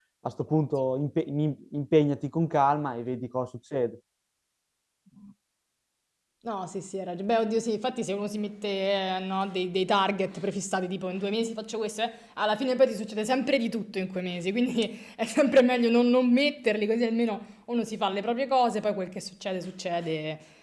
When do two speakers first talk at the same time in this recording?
none

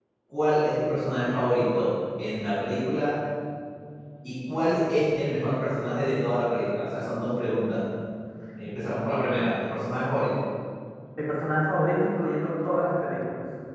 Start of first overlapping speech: none

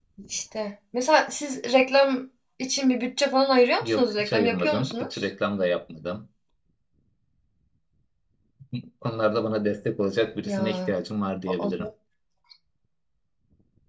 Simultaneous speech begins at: 3.8 s

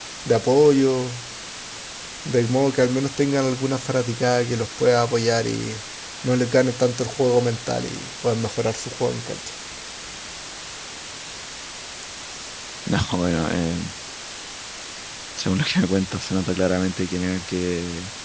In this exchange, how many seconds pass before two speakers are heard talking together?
none

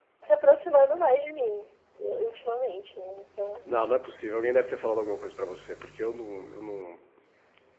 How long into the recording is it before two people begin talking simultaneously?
none

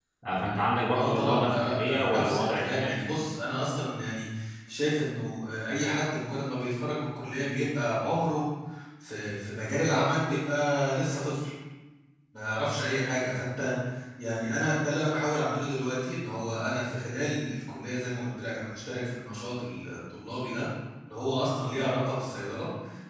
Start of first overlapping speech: 0.9 s

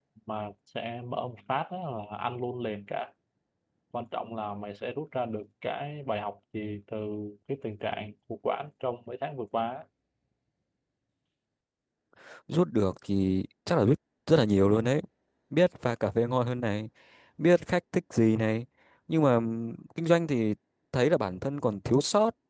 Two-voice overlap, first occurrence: none

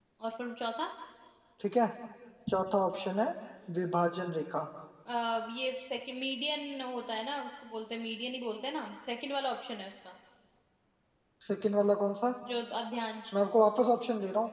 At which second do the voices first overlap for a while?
none

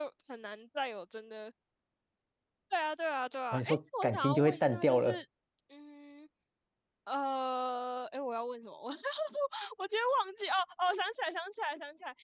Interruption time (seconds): 3.5 s

